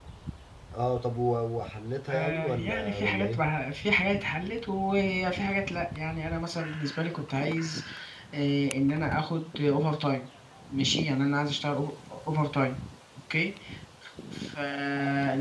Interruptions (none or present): present